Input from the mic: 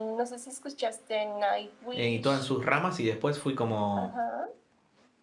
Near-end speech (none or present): present